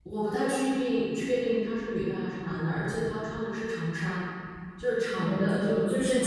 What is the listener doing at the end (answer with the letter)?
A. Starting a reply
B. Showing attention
A